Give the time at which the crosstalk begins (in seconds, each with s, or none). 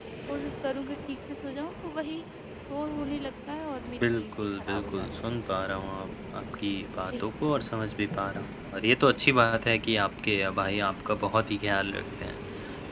4.0 s